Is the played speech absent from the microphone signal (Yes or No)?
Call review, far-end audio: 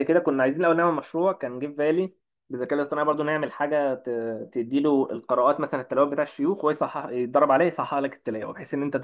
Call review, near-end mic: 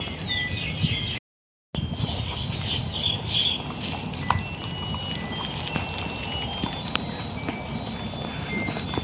Yes